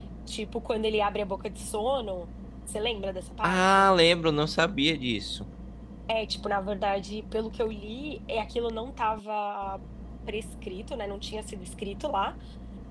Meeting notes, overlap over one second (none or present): none